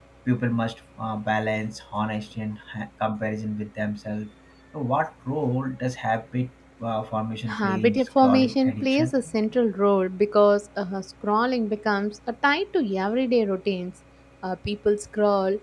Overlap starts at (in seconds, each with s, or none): 7.5 s